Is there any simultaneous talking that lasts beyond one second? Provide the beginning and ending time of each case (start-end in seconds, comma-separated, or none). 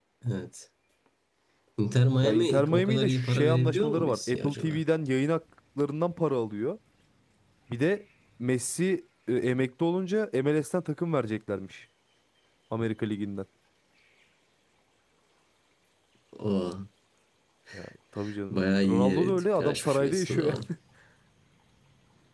2.2-4.8, 18.5-20.6